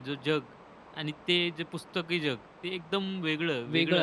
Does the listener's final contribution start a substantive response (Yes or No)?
Yes